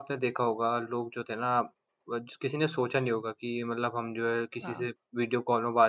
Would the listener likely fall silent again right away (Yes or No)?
Yes